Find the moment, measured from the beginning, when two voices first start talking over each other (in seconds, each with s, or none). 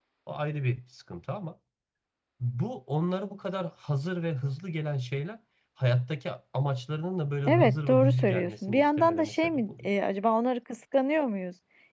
7.5 s